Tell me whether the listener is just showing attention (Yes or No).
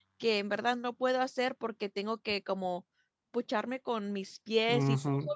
No